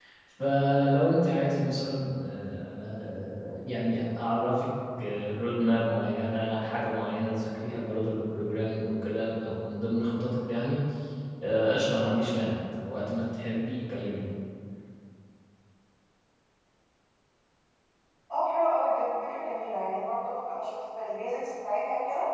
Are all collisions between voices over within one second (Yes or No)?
Yes